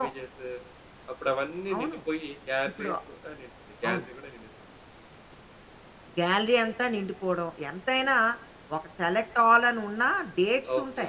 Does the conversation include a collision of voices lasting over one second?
No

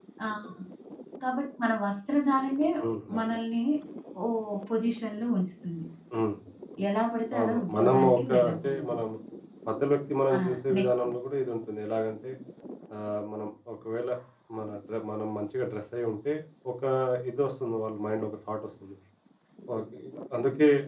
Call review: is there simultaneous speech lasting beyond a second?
Yes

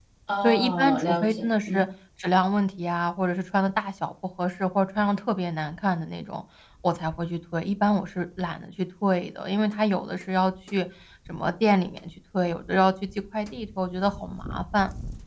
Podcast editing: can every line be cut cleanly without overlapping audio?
No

